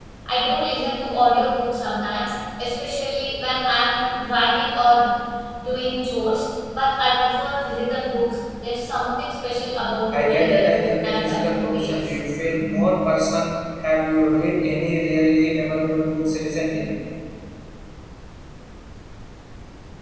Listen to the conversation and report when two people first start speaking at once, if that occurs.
10.1 s

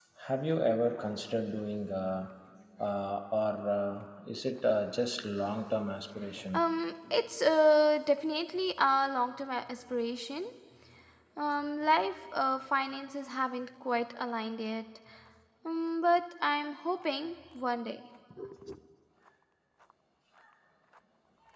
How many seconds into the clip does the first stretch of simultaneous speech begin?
none

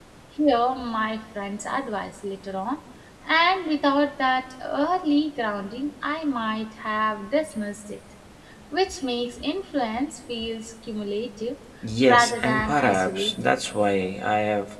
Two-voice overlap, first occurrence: 12.0 s

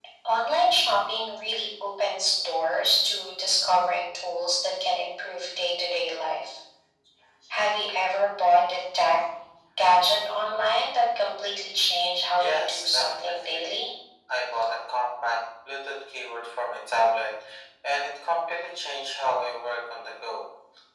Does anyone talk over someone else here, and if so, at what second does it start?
12.4 s

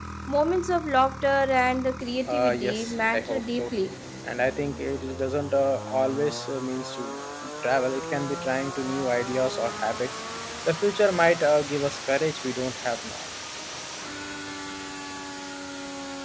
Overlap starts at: 2.3 s

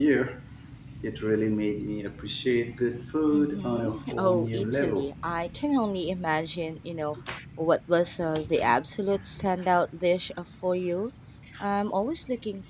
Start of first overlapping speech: 3.3 s

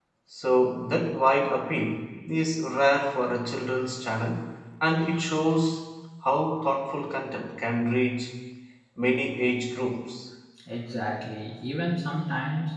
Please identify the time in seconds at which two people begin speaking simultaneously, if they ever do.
none

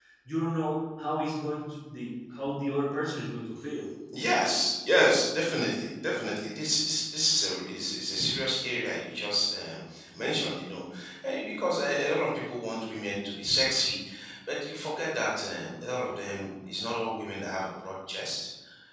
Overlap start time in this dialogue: none

